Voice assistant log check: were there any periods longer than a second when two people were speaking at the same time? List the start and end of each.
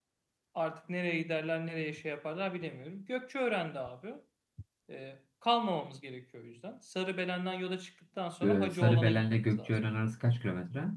8.4-9.8

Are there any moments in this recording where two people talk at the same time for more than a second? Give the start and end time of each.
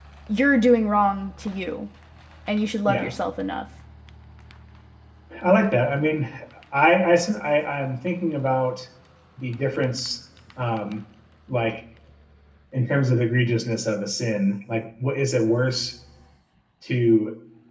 none

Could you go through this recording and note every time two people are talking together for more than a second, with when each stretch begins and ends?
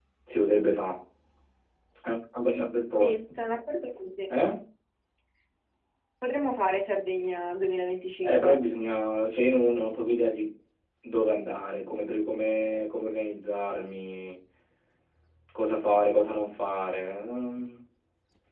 none

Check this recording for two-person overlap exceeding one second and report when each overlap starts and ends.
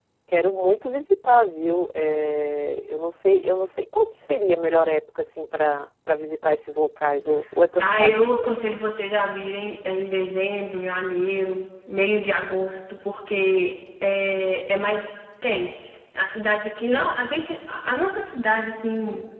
none

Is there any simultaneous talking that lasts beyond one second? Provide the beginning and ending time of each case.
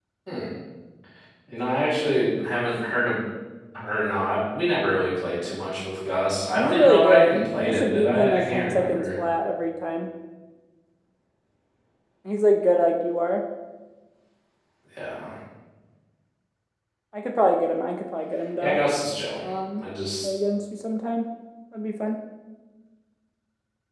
6.5-9.0

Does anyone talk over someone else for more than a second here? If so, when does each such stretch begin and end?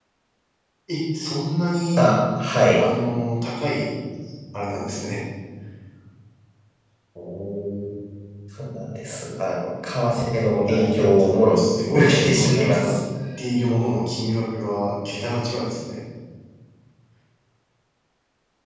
10.6-12.9

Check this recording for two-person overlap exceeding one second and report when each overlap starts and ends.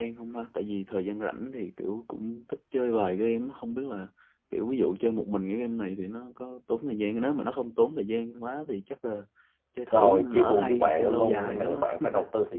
9.9-12.1

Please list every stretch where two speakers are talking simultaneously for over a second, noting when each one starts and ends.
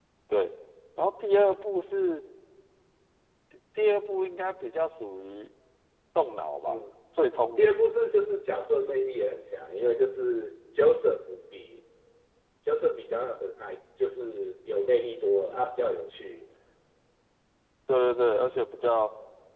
none

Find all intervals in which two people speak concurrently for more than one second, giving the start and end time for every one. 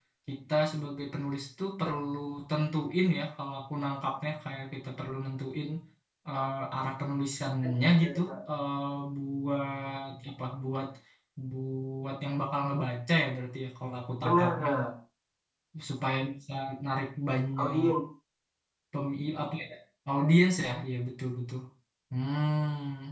none

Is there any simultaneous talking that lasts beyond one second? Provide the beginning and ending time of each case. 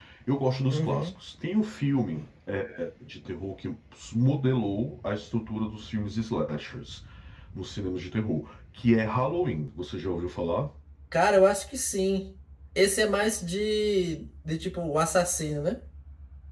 none

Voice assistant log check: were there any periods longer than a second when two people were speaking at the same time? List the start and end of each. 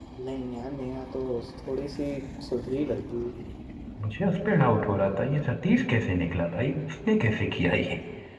none

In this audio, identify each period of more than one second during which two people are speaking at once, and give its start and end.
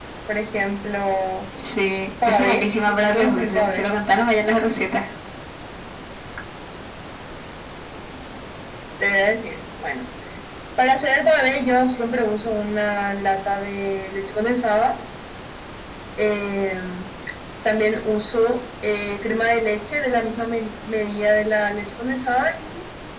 2.2-3.8

